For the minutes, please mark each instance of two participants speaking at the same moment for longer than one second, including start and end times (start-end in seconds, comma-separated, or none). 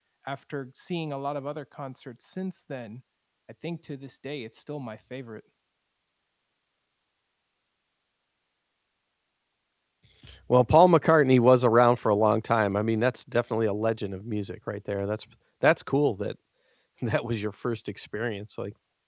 none